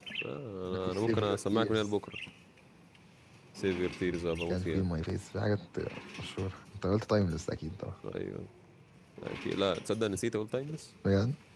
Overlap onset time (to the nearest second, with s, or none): 1 s